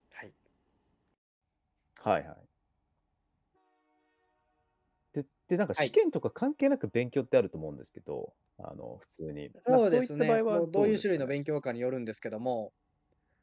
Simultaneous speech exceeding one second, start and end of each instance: 9.7-11.3

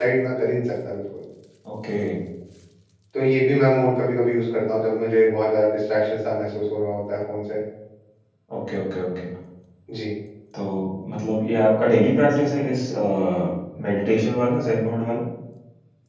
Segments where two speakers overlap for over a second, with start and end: none

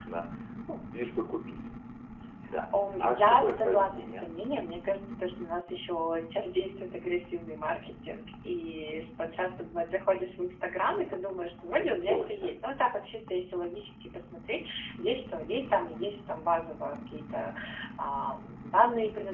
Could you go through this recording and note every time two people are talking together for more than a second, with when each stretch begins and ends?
2.9-4.2

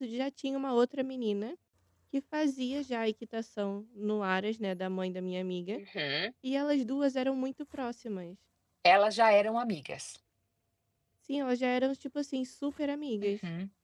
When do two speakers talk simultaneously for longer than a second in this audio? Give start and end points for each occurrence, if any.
none

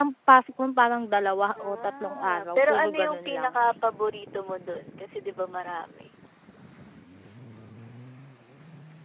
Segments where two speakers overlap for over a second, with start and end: 1.7-3.5

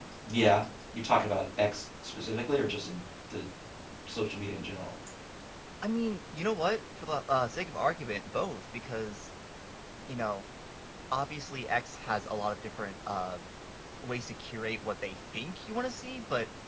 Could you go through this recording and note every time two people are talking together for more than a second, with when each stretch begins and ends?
none

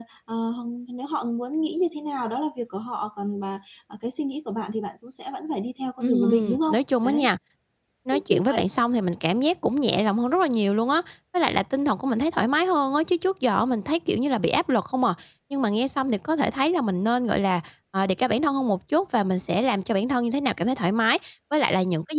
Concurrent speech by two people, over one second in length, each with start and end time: 6.0-7.3

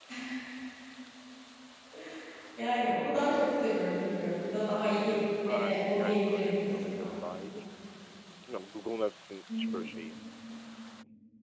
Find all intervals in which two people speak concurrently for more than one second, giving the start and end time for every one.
5.5-7.1

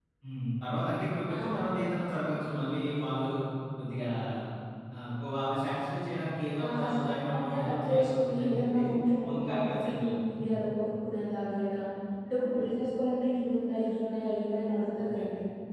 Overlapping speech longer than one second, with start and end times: 6.6-8.8, 9.3-10.6

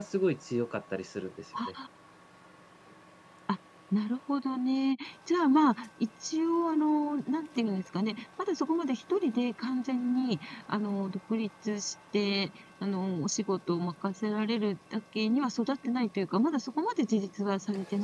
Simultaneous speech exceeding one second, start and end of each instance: none

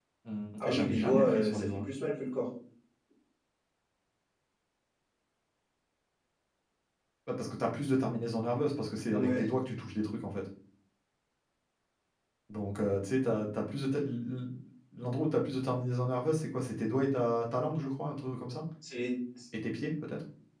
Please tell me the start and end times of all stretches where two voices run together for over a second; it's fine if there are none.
0.7-1.9

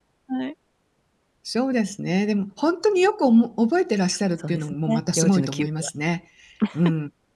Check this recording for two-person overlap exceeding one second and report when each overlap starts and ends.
4.5-5.9

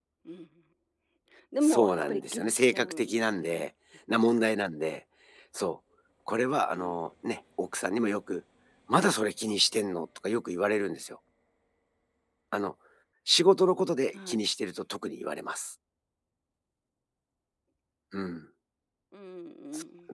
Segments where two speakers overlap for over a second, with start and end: 1.6-3.7

